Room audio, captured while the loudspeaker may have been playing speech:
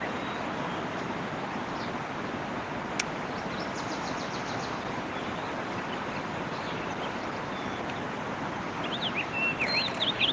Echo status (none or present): none